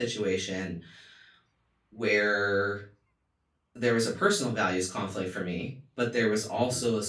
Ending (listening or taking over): listening